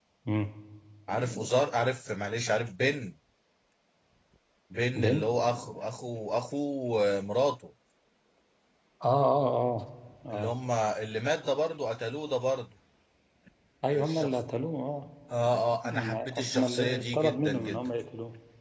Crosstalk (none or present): present